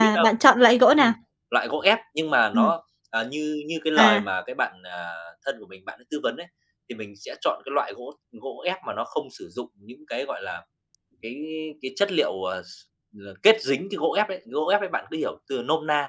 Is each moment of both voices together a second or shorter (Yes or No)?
Yes